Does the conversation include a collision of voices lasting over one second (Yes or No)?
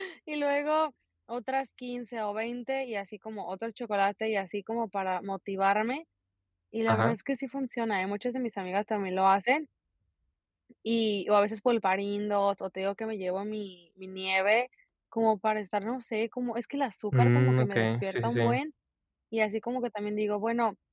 Yes